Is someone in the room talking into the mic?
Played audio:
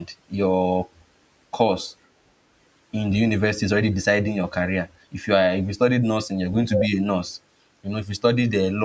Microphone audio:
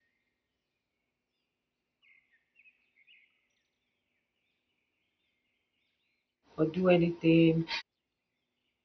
Yes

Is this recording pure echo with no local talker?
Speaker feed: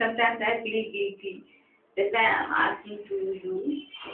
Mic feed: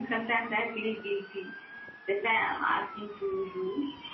Yes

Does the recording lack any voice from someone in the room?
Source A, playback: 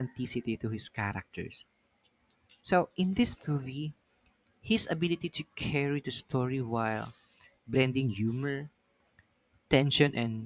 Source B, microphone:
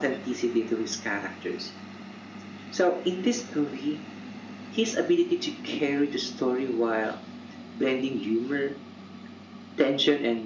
Yes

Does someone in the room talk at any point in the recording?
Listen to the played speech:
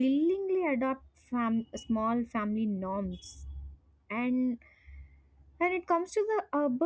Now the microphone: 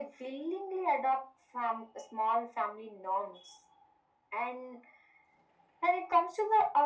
No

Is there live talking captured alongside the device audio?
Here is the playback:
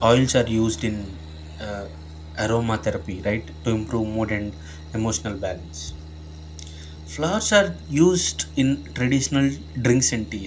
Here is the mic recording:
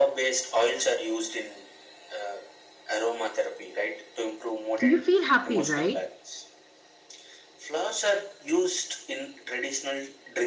Yes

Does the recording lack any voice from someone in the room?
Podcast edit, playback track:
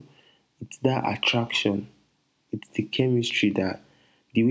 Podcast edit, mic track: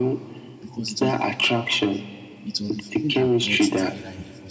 No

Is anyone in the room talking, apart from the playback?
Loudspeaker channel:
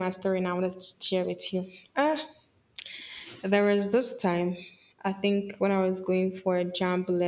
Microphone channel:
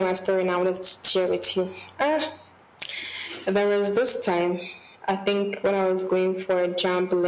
No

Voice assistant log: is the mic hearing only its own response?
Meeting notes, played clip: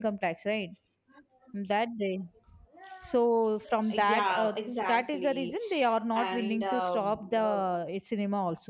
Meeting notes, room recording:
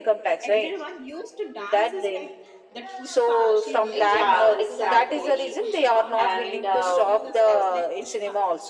No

